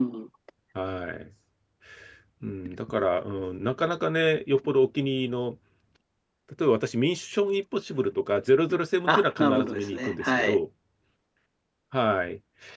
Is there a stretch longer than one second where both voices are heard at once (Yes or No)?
Yes